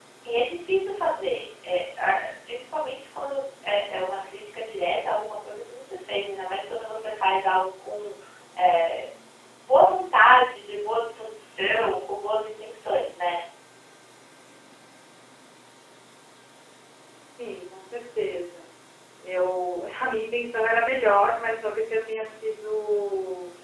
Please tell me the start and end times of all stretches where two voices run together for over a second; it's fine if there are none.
none

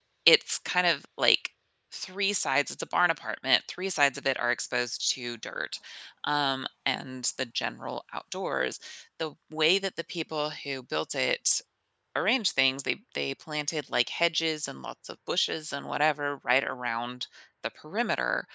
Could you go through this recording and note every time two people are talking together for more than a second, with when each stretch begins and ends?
none

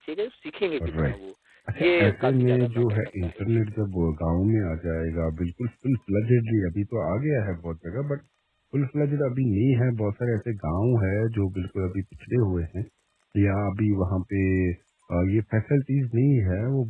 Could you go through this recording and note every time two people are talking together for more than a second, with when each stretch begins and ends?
1.8-3.6

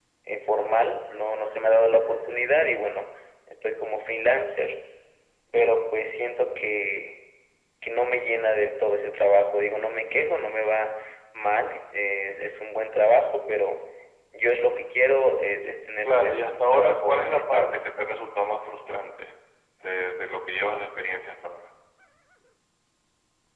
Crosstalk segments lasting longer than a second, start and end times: 16.1-17.6

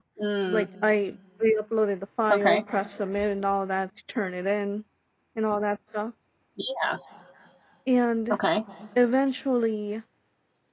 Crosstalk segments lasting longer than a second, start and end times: none

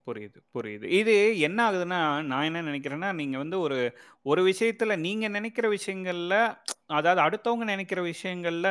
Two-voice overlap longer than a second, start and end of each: none

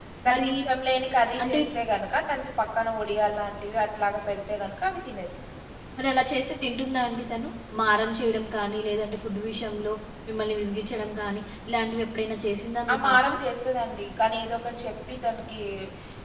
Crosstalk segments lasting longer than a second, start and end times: none

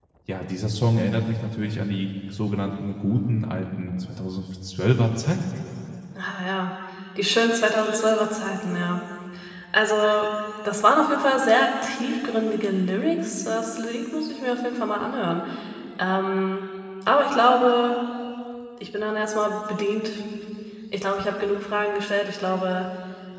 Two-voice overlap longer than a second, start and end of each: none

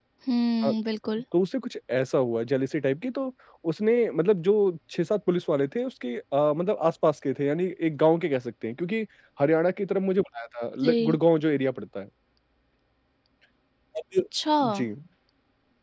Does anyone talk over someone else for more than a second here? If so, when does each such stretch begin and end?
none

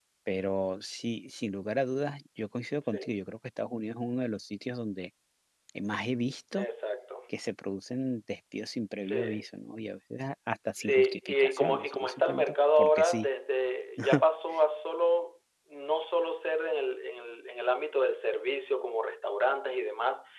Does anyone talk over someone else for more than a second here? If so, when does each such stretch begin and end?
10.8-13.3

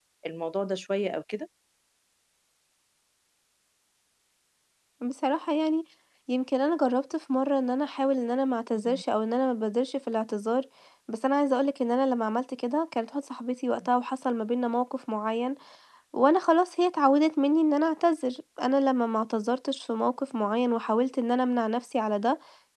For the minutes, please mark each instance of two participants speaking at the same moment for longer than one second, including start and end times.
none

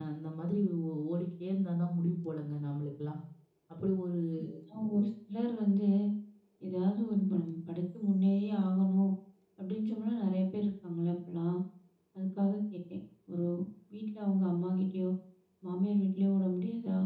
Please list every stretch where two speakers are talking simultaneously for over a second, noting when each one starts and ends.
none

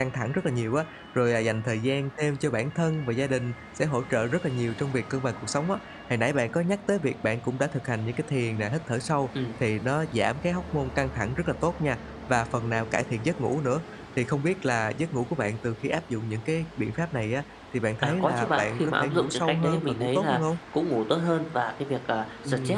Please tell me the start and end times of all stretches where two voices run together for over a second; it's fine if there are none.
18.0-20.4

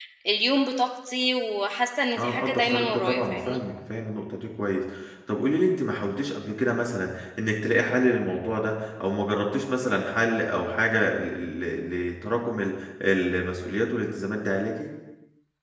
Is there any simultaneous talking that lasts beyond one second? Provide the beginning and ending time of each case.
2.2-3.6

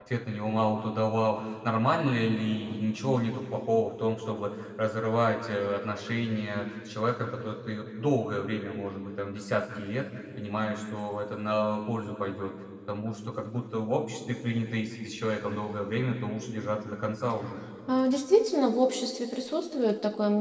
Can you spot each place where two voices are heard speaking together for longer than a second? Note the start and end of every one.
none

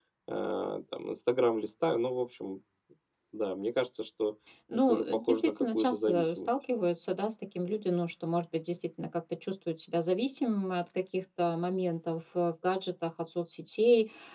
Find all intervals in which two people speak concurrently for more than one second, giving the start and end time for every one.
4.9-6.5

